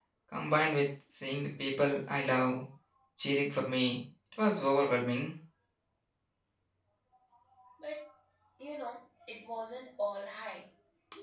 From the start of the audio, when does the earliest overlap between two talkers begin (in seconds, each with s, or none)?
none